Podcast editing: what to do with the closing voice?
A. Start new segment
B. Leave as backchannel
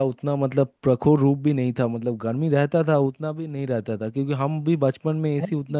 B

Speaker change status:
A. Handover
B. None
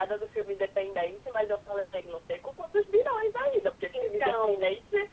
B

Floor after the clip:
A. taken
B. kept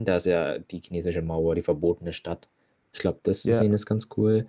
B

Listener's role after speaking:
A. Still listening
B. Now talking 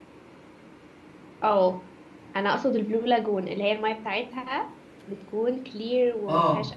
B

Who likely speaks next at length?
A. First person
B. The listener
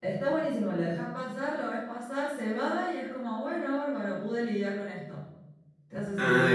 B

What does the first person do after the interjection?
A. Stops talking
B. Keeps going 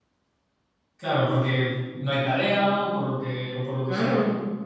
A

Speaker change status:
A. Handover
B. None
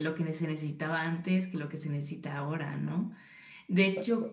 B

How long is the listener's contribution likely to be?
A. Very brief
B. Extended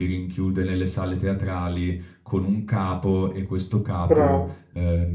A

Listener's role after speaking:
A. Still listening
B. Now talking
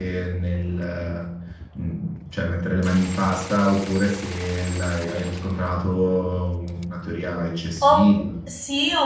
B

